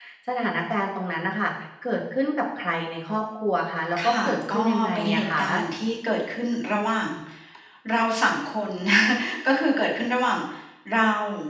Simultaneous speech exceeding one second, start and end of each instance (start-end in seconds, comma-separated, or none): 4.0-5.4